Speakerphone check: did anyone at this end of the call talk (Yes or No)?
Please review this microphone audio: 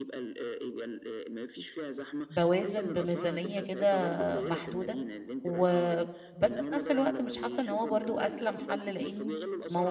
Yes